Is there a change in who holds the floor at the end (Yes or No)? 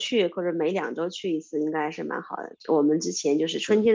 No